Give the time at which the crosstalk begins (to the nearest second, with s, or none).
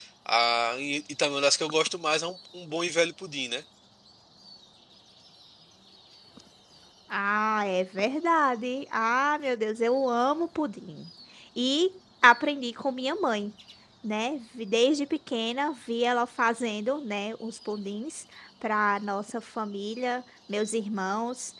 none